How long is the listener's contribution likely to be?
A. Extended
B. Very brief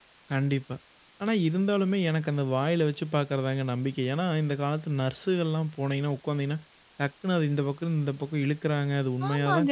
A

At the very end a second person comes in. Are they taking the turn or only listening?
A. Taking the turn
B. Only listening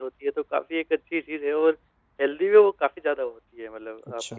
B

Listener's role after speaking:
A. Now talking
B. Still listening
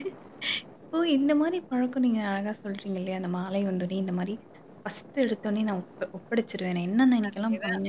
B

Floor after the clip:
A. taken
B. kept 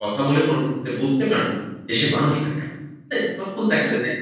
B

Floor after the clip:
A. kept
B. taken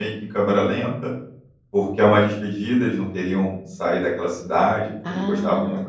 A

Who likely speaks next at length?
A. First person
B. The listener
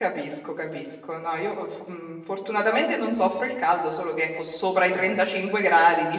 A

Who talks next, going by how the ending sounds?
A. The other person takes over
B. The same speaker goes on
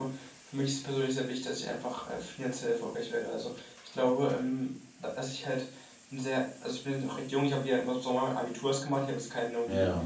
B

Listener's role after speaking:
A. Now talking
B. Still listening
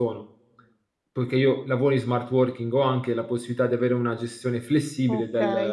A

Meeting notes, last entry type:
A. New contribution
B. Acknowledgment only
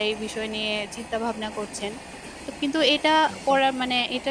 B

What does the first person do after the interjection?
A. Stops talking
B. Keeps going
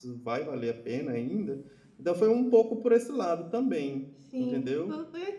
A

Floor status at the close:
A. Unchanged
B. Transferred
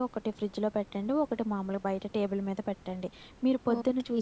A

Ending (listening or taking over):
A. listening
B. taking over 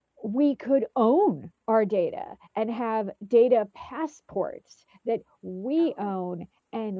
A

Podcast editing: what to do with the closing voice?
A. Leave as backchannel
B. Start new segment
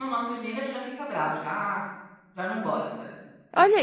B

